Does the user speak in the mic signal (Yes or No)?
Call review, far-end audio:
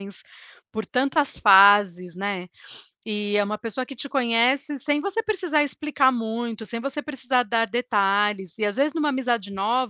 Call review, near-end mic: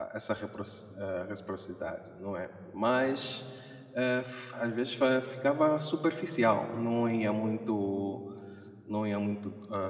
Yes